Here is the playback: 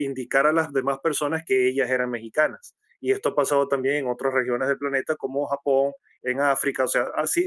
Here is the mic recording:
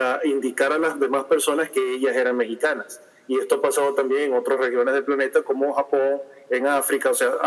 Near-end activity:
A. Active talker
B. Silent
B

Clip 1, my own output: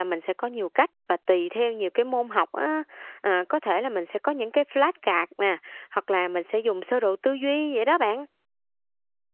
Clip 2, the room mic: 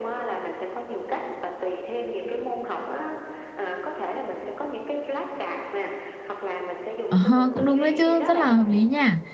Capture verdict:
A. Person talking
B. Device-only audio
A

